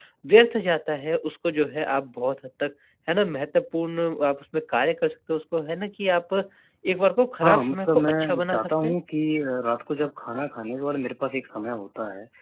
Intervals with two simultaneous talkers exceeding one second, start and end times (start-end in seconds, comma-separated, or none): 7.4-8.9